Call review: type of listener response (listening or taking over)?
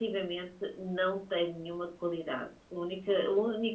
listening